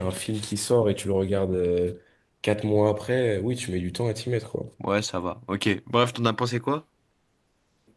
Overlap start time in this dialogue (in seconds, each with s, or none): none